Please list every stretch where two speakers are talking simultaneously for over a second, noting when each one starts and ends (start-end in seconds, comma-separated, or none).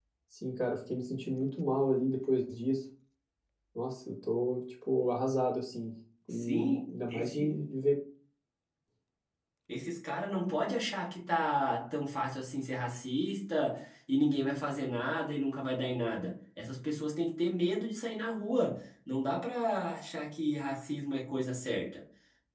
6.3-7.5